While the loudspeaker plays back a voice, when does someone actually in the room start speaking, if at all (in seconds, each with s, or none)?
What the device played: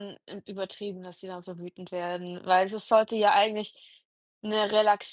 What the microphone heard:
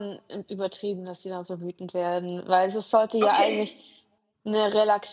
3.2 s